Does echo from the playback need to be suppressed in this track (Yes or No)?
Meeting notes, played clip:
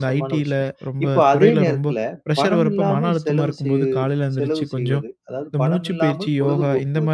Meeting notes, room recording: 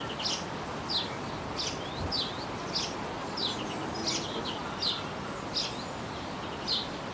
No